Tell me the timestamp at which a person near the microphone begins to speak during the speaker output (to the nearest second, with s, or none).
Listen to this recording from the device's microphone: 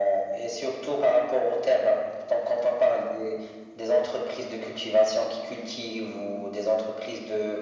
none